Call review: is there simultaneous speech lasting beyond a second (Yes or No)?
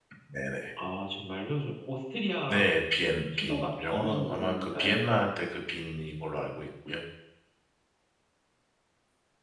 Yes